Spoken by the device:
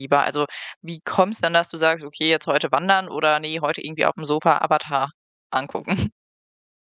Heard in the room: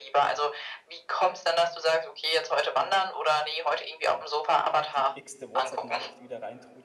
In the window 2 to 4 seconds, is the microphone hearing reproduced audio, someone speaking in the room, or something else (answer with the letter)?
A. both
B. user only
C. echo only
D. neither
C